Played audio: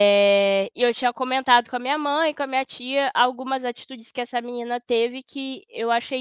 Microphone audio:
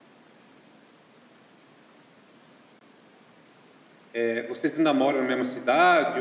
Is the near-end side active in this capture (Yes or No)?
Yes